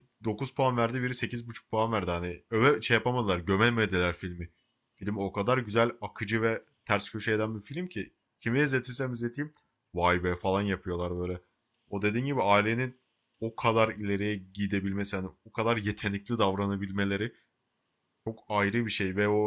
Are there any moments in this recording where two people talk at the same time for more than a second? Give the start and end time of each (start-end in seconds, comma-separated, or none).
none